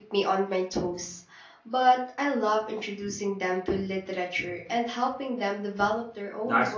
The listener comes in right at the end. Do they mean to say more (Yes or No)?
Yes